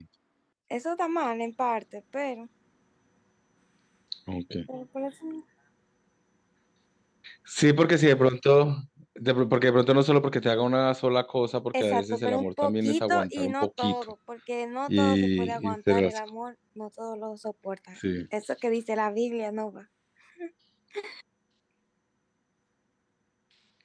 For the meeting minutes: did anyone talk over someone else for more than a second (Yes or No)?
Yes